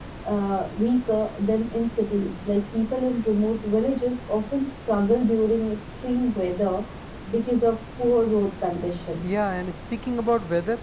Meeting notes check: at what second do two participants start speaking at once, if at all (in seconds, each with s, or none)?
none